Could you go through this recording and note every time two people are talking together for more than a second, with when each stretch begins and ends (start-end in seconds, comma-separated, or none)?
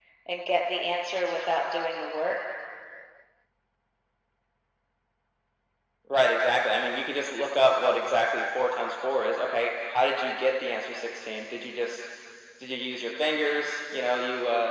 none